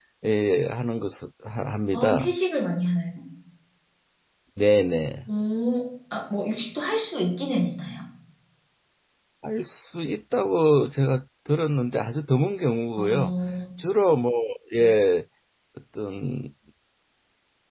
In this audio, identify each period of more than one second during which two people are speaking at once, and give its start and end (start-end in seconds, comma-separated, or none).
none